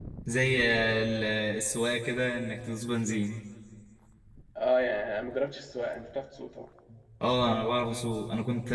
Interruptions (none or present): none